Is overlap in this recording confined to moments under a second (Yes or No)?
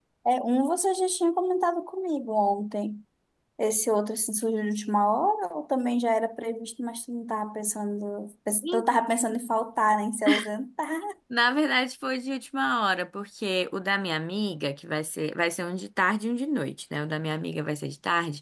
Yes